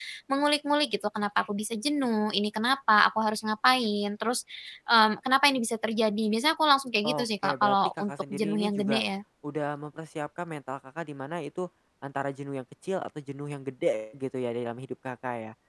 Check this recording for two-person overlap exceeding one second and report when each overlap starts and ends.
7.0-9.0

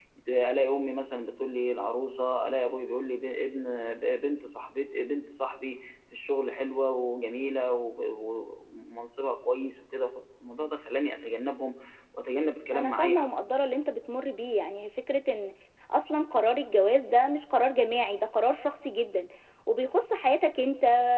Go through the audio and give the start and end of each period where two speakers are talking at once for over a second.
none

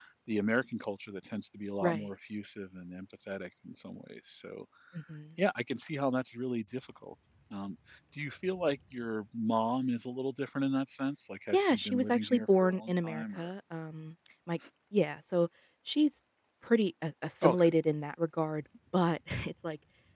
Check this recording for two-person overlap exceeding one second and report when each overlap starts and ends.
11.5-13.5

